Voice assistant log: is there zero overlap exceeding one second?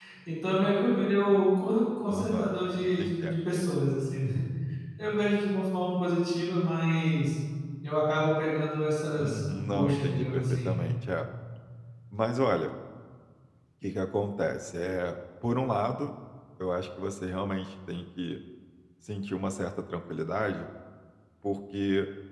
No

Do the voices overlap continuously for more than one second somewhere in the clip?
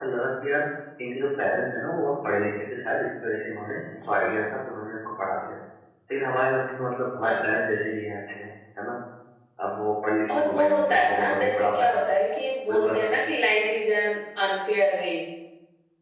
Yes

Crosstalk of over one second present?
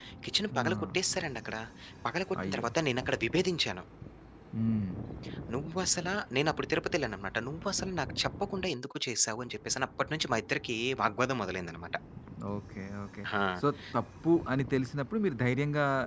No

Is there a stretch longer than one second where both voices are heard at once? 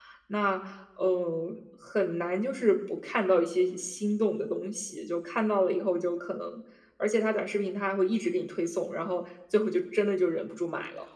No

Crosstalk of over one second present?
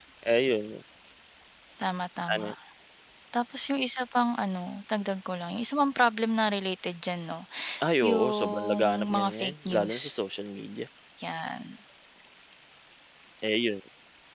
Yes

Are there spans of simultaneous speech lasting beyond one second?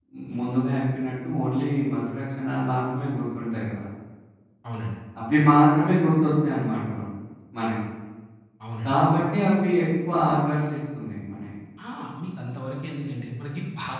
No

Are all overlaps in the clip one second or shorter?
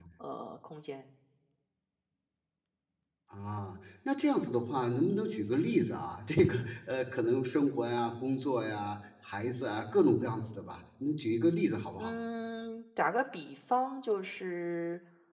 Yes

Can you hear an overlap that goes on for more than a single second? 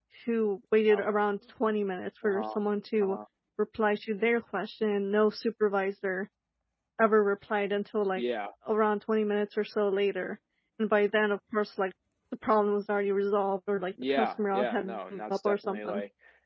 Yes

